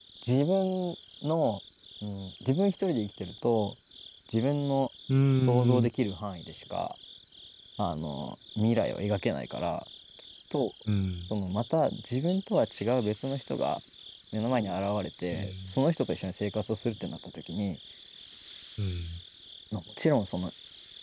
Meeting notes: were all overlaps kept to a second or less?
Yes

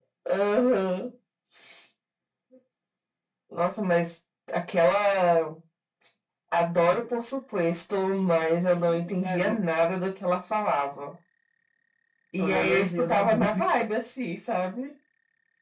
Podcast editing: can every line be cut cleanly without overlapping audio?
No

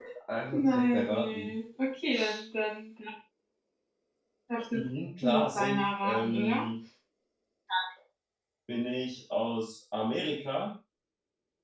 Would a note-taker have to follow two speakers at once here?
Yes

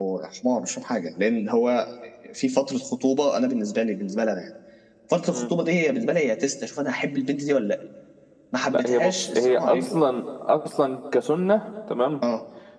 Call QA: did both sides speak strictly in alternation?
No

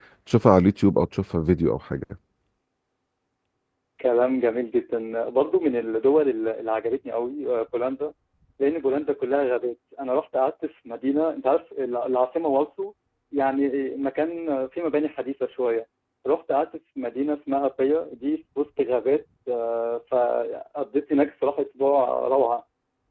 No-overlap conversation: Yes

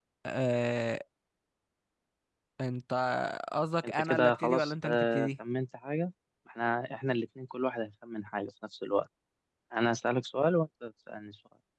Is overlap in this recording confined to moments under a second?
No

